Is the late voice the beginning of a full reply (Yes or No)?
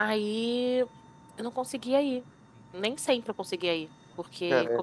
No